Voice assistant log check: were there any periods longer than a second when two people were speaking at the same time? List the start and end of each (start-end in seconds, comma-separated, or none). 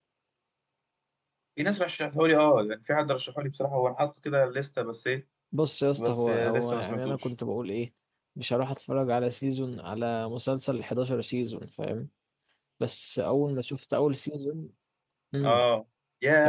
6.0-7.3